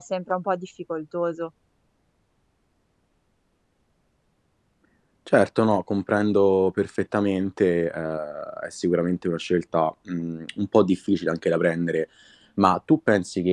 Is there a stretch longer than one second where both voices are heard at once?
No

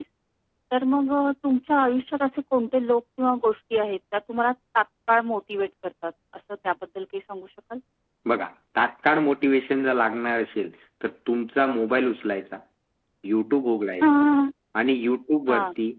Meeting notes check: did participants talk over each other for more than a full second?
No

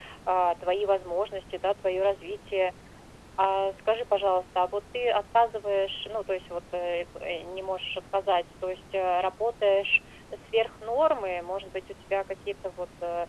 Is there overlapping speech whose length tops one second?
No

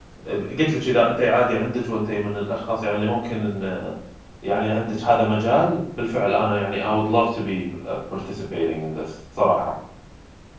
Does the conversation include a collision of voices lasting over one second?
No

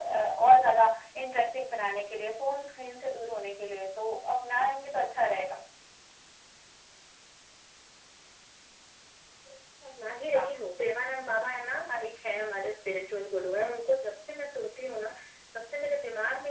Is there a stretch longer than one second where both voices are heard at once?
No

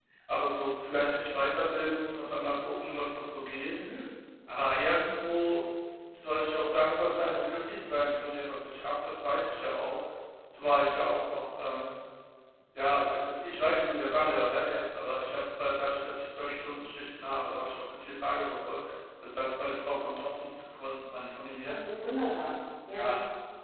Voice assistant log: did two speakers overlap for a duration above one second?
No

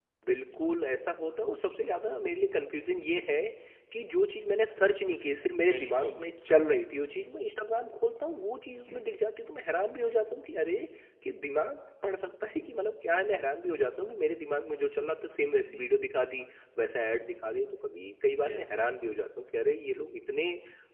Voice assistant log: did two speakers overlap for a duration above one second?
No

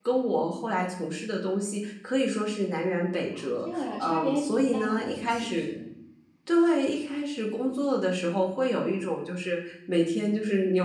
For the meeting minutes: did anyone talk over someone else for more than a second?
Yes, from 3.3 s

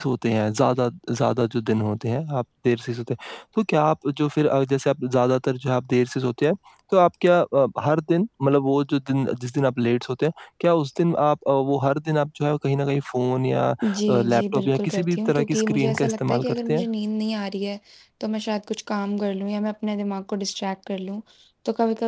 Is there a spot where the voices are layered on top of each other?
Yes, from 13.8 s

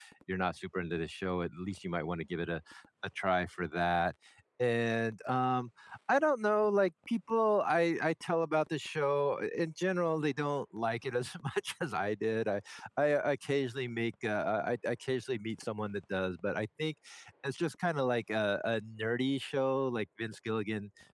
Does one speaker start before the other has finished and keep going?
No

